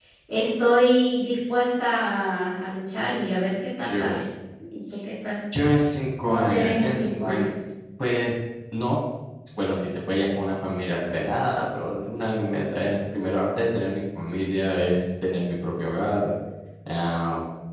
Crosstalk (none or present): present